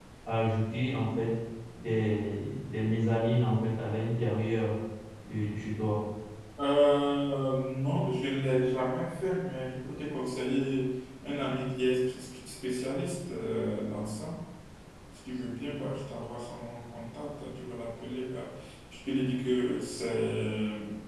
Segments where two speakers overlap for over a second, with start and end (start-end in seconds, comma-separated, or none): none